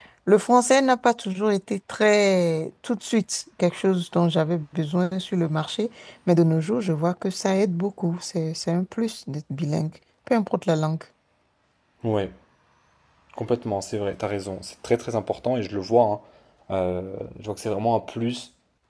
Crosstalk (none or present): none